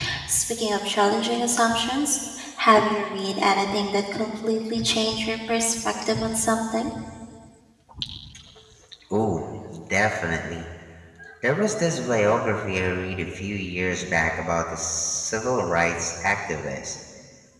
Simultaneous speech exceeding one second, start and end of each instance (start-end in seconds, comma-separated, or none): none